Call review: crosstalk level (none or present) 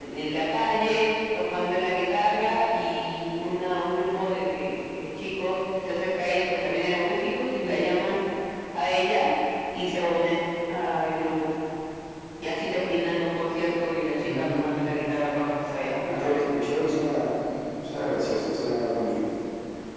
present